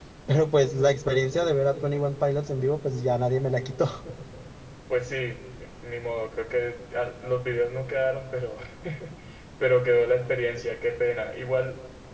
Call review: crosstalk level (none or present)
none